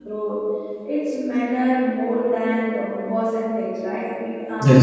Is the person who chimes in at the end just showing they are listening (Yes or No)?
Yes